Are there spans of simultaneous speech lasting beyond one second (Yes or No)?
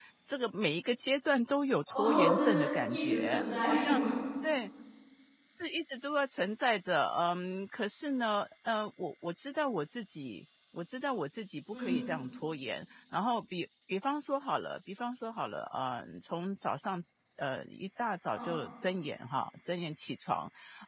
Yes